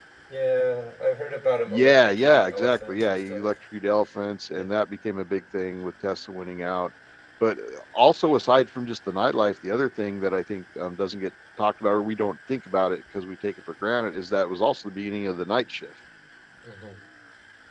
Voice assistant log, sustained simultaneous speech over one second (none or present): present